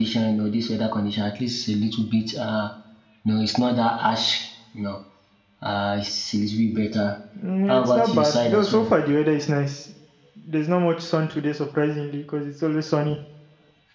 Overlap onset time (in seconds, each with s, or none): 7.7 s